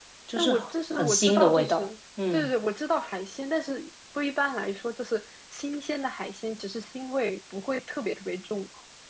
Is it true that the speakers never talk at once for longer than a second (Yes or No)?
No